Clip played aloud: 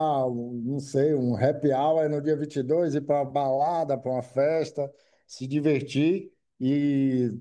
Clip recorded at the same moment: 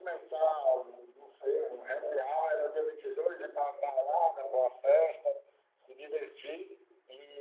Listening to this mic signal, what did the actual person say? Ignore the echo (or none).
none